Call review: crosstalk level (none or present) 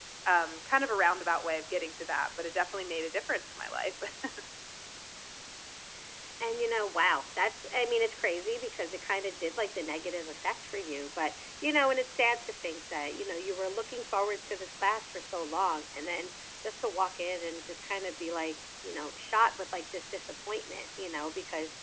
none